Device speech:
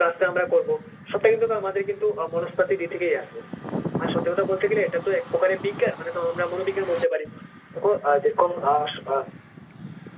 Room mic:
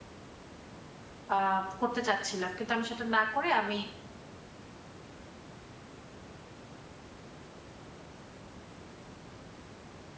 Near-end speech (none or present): present